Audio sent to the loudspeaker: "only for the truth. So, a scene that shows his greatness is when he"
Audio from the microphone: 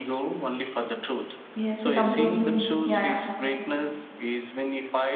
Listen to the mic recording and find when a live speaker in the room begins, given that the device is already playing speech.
1.5 s

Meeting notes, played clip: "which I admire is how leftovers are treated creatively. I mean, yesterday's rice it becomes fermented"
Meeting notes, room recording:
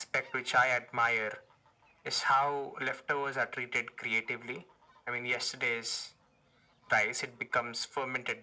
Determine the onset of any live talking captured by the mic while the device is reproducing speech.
none

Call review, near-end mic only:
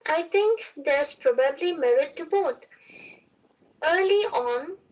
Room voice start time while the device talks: none

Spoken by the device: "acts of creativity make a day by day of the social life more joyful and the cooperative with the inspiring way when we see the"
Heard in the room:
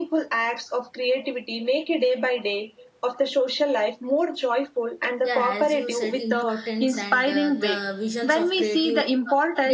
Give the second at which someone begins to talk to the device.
5.2 s

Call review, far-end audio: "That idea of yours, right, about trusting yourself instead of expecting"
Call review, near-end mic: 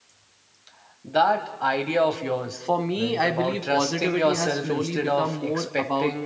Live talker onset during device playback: 2.7 s

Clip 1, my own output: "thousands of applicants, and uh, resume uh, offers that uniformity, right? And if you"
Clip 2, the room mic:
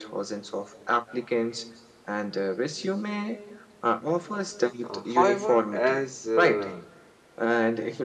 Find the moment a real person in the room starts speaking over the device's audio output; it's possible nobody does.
4.8 s

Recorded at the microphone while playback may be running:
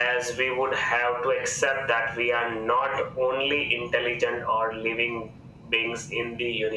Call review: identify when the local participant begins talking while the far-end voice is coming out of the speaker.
none

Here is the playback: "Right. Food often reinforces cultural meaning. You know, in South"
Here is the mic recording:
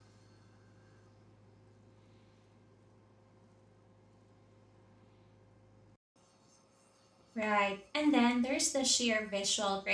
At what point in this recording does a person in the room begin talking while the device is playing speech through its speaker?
7.3 s

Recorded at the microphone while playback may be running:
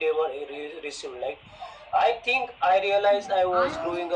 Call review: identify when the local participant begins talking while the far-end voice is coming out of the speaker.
3.1 s

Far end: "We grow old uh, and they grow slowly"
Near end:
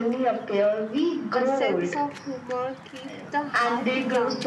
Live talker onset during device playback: 1.3 s

